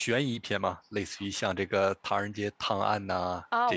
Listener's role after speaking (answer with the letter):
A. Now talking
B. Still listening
A